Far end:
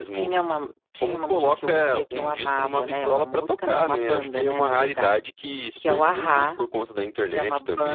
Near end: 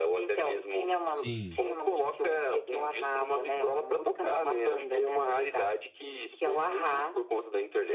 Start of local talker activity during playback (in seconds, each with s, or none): 1.2 s